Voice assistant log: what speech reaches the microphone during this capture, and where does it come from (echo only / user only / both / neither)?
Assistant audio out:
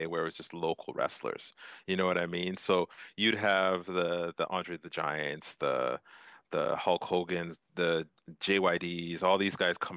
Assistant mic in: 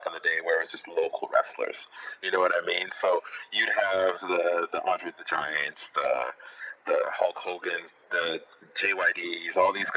echo only